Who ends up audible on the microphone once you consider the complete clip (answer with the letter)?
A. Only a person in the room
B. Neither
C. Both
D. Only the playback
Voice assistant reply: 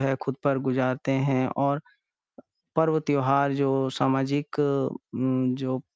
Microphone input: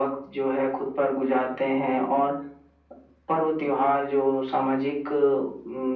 D